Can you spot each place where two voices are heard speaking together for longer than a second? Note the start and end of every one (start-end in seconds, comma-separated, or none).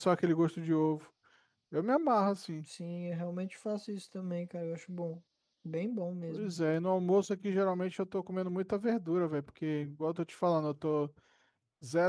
none